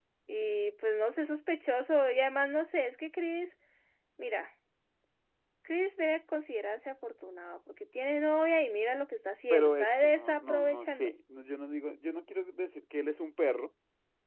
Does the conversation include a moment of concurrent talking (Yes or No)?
Yes